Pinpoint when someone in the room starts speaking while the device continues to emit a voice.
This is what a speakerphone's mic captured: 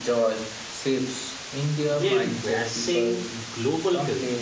1.9 s

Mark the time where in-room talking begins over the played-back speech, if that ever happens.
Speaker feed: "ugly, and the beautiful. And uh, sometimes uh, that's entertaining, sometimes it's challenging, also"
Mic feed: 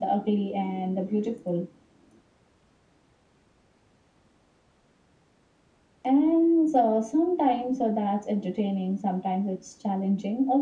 none

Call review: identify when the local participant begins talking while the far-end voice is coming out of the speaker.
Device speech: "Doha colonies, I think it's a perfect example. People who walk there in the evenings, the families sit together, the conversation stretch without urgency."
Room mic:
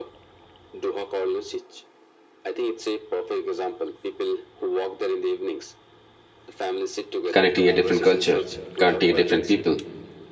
7.3 s

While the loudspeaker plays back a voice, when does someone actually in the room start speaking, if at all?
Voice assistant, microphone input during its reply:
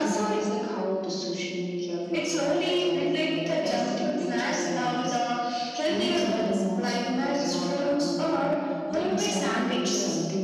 none

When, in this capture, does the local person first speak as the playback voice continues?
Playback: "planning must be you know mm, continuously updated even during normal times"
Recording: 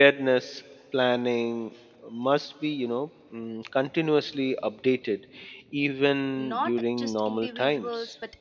6.3 s

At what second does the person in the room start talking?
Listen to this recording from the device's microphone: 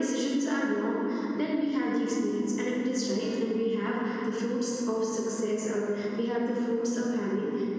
none

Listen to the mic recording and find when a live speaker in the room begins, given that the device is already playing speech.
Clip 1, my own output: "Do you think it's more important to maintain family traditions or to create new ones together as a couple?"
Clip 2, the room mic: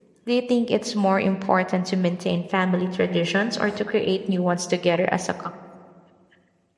none

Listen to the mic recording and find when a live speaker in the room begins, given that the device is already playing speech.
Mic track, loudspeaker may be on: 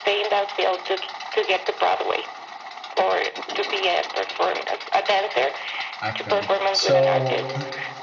6.0 s

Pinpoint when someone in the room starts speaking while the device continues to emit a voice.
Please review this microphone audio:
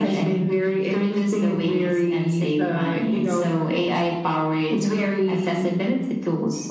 none

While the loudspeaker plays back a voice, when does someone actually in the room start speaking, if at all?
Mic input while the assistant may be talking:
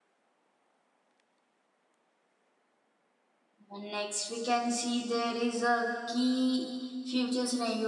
3.7 s

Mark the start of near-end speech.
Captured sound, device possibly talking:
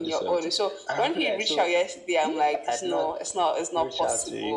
none

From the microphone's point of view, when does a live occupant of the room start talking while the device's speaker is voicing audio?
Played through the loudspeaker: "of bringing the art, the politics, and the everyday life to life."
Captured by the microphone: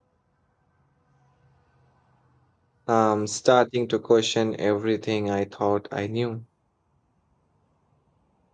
2.9 s

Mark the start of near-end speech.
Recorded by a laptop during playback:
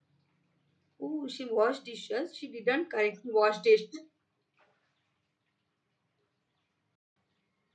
1.0 s

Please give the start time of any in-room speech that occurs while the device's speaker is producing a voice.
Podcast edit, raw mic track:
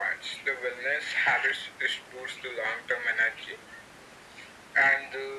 none

